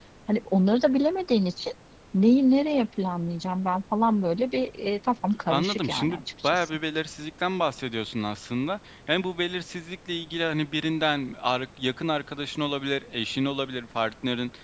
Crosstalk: present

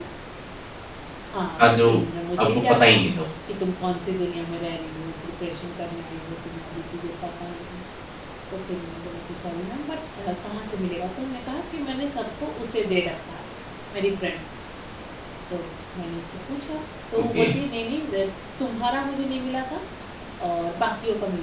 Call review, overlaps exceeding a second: none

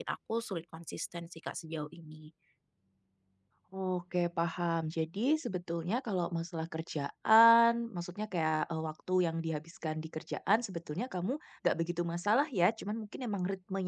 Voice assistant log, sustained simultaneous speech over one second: none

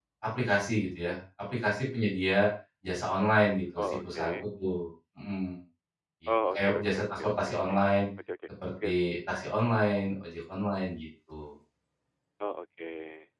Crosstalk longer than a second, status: present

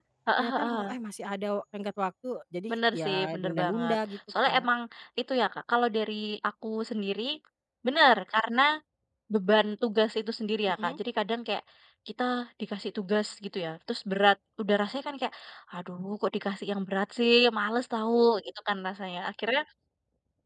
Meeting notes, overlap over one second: present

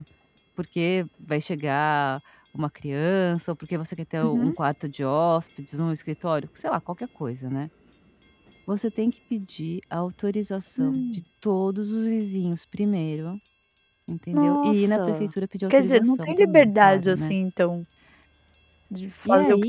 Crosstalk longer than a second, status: present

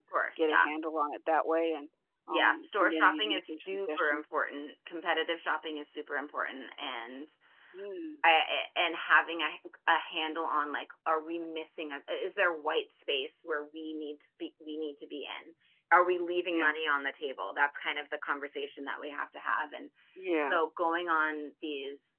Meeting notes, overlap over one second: present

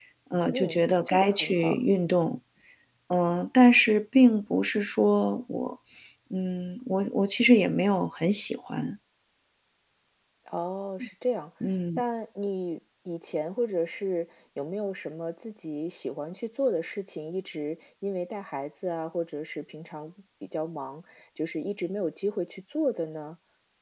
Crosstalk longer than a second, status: present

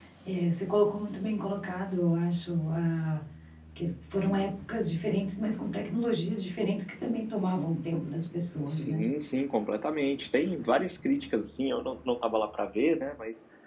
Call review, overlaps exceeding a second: none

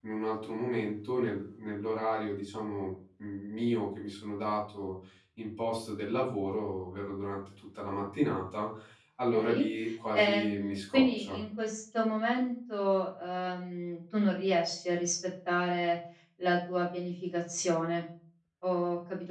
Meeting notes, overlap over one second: present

